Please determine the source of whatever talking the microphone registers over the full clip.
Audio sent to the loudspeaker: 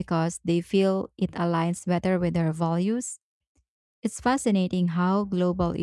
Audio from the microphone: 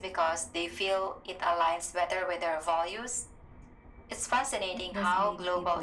both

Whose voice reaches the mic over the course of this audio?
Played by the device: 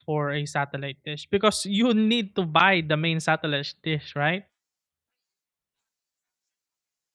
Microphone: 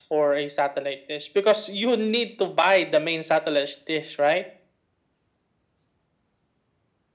echo only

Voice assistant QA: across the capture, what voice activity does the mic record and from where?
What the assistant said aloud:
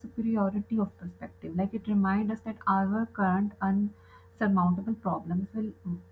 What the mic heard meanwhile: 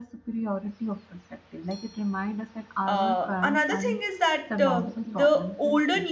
both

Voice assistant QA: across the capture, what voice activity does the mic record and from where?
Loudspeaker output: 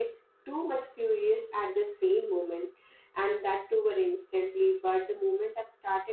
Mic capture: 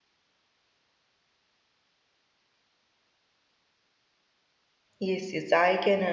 user only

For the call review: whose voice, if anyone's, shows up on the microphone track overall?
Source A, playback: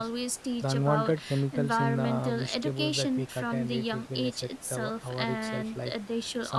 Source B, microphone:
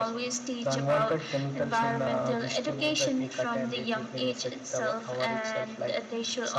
echo only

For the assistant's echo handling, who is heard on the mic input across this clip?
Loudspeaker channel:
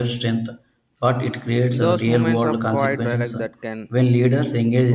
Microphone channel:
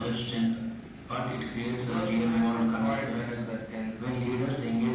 echo only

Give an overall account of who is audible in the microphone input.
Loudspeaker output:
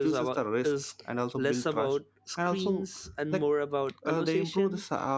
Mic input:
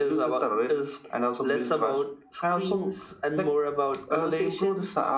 echo only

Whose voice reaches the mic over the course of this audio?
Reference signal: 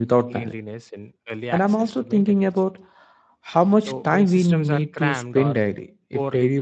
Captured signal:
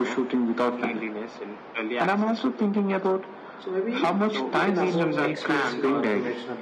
both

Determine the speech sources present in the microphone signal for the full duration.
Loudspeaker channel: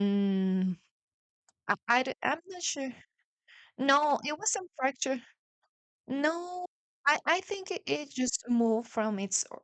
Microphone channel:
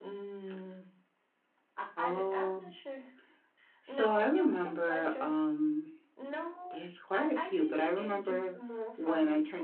both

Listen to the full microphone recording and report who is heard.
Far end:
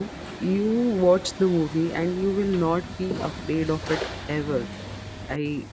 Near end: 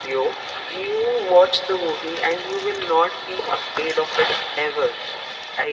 echo only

